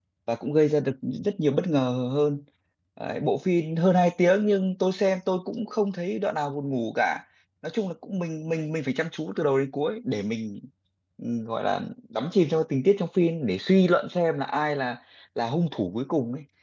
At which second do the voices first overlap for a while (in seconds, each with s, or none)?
none